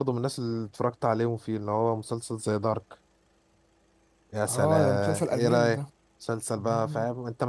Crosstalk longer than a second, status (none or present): present